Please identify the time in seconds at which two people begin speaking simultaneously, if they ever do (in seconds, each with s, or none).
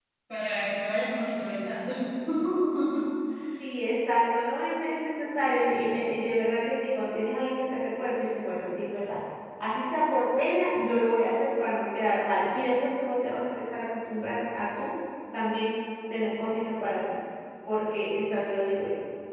none